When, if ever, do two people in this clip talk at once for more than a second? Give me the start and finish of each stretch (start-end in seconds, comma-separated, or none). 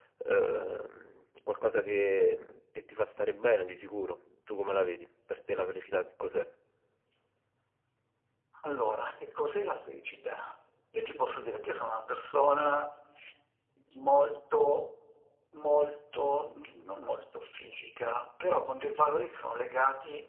none